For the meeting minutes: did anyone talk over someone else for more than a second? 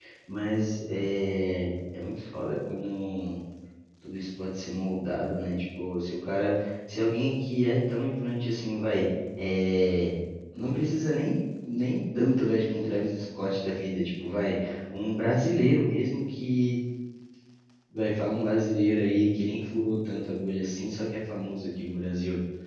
No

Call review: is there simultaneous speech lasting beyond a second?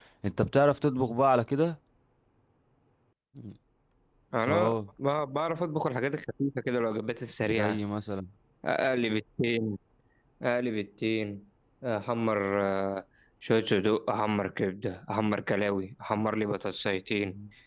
No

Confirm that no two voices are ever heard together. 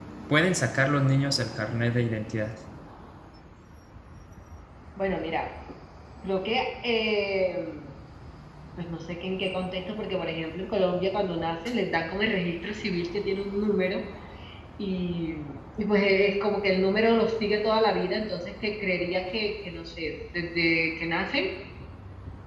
Yes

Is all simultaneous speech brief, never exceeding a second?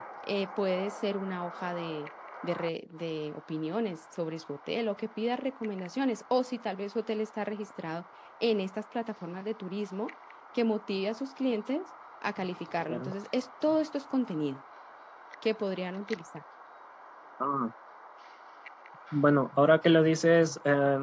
Yes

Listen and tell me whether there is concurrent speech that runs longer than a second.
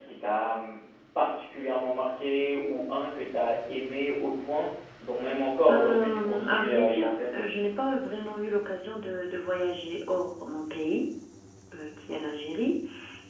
Yes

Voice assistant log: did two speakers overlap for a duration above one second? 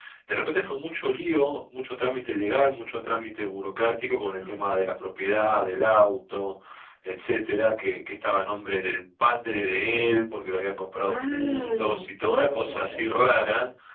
Yes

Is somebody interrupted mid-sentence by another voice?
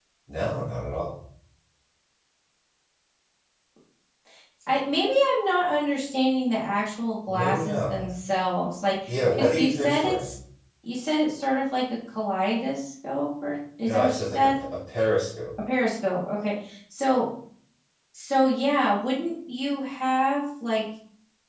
Yes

